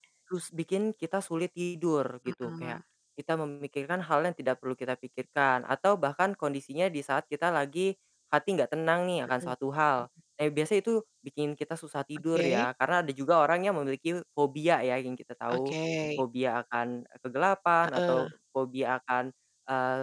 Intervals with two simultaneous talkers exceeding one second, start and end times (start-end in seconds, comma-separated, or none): none